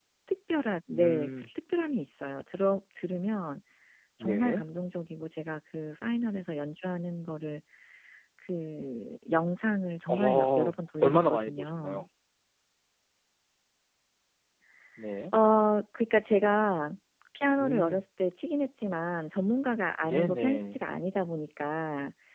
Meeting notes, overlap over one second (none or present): present